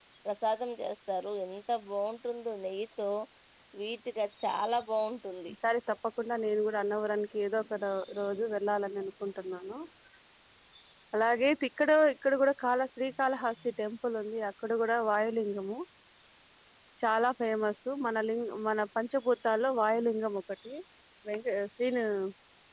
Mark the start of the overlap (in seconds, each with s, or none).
none